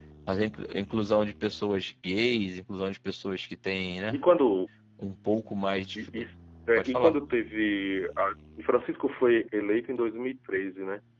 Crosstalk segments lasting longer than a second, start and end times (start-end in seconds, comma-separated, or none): none